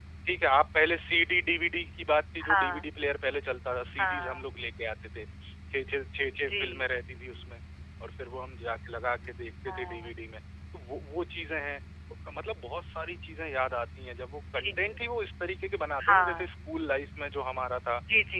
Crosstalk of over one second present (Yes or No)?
No